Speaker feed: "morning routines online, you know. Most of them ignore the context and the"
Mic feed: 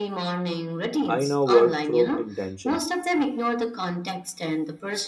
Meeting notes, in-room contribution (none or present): present